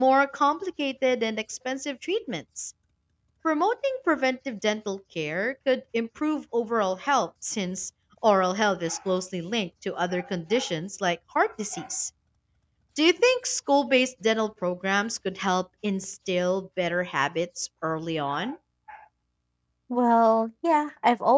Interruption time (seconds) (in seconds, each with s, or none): none